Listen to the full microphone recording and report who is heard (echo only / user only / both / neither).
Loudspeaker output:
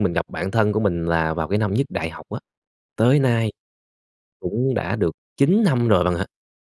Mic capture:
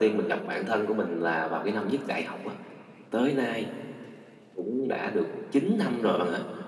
echo only